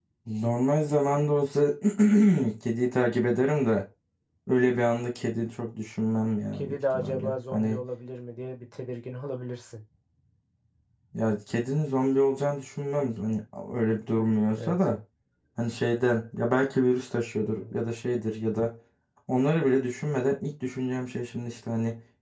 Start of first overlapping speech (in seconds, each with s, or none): 6.6 s